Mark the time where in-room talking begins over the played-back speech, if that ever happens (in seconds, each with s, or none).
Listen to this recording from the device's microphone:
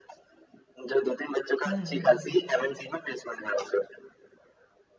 1.6 s